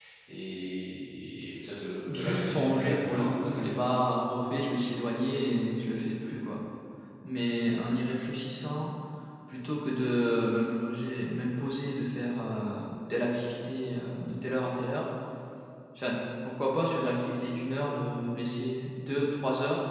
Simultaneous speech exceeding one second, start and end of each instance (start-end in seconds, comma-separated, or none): 2.1-3.6